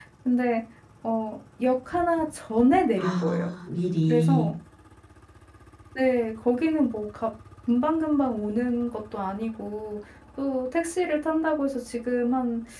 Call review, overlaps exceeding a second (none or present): none